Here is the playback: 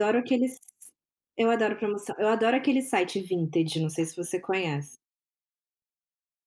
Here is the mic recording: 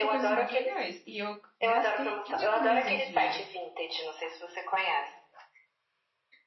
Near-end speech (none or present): present